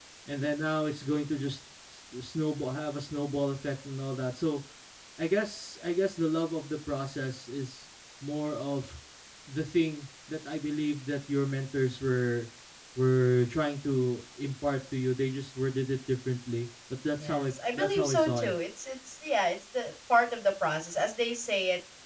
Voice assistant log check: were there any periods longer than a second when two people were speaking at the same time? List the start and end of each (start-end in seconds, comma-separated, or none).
17.2-18.5